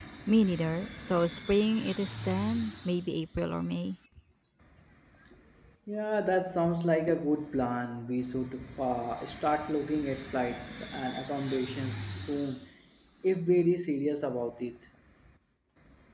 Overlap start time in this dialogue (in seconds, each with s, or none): none